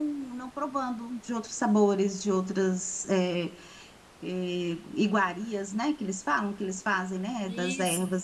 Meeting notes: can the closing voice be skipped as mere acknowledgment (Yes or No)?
No